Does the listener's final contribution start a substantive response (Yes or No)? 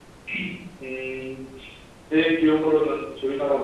No